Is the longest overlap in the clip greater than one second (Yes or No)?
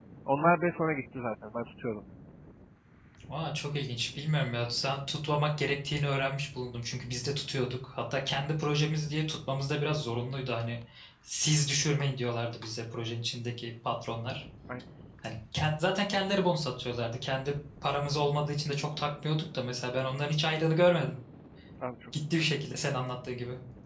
No